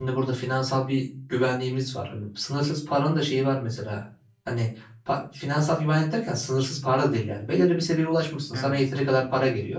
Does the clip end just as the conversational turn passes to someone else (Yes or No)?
No